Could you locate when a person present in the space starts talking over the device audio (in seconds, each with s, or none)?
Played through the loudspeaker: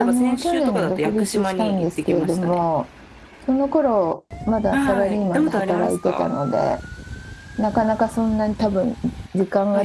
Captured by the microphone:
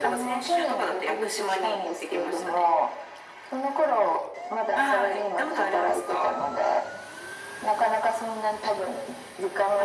none